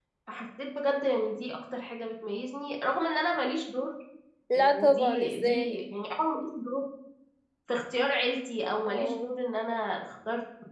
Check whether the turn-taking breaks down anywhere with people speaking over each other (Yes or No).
Yes